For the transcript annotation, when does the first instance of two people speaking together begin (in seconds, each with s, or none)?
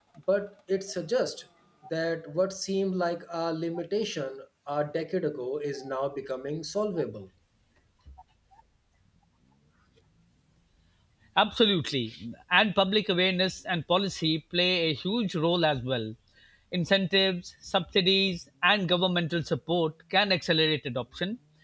none